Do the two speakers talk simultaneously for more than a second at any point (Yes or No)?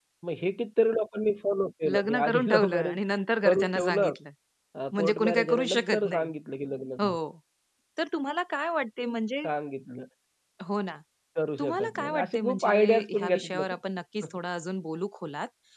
Yes